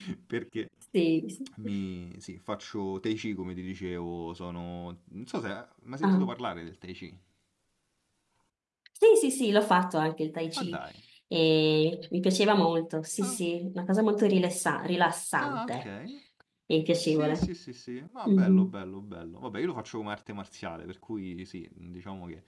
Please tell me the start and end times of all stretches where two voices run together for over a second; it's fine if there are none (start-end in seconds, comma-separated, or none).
none